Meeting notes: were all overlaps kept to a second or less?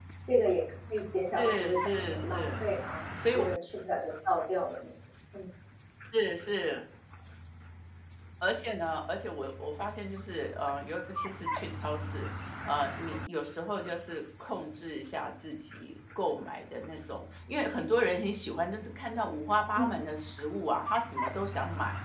No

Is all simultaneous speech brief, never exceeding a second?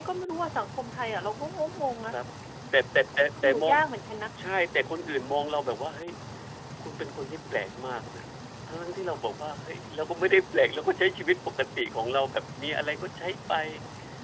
Yes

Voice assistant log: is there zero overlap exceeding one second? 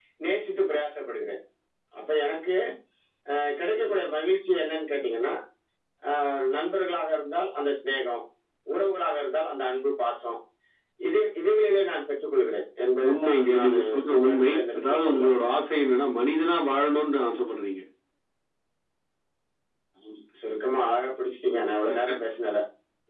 No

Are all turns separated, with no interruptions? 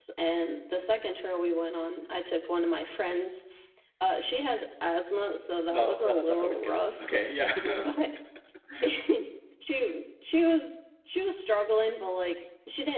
No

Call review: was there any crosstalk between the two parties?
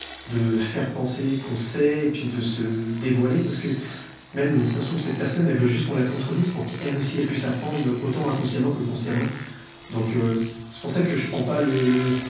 No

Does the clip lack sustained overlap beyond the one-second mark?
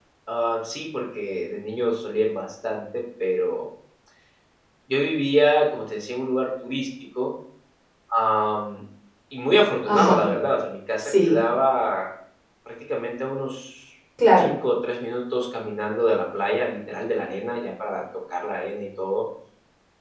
Yes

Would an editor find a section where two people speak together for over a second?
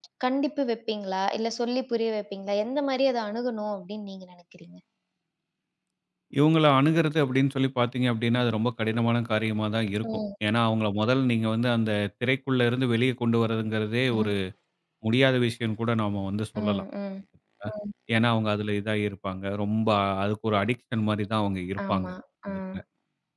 No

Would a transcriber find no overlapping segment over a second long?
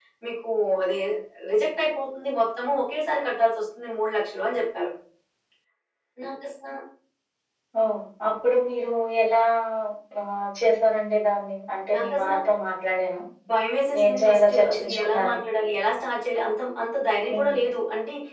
No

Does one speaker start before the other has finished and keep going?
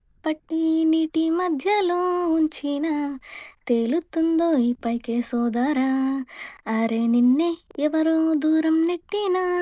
No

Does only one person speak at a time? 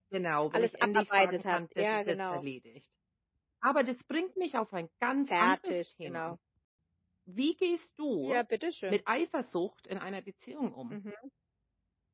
No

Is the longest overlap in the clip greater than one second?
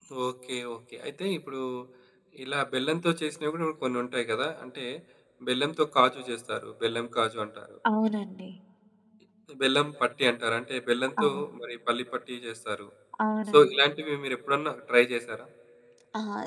No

